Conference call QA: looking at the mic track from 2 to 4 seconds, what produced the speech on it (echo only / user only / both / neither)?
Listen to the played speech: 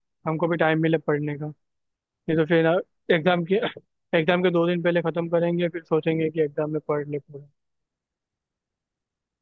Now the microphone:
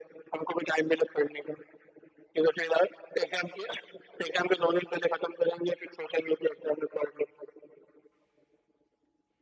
echo only